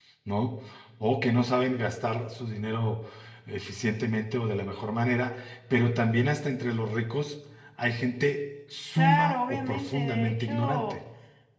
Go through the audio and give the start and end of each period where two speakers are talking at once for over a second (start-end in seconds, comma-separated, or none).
9.0-11.0